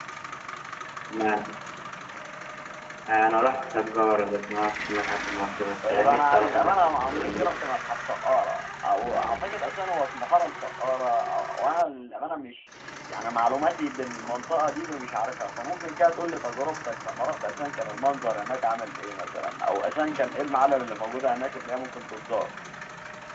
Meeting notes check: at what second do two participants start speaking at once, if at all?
5.8 s

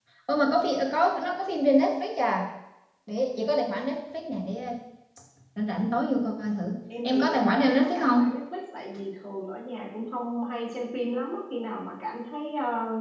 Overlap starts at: 6.9 s

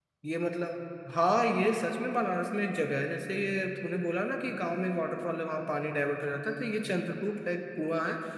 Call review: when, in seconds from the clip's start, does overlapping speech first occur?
none

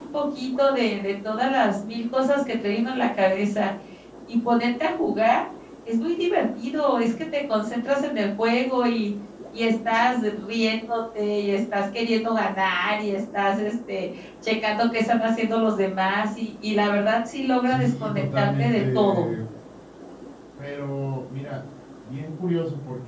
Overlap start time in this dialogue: 17.6 s

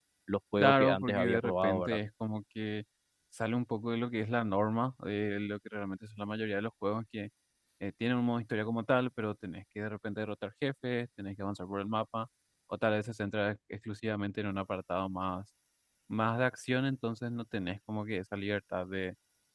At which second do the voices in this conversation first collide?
0.6 s

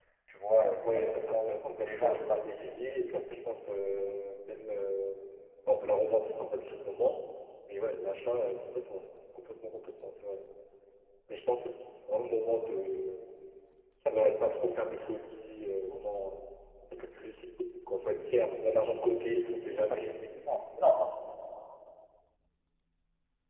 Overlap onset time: 0.6 s

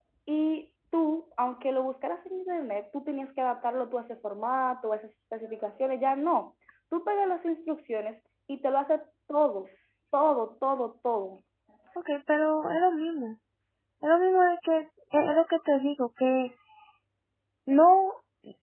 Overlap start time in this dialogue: none

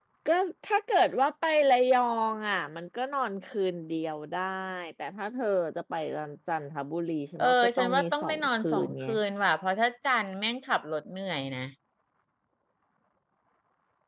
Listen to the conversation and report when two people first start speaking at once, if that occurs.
7.4 s

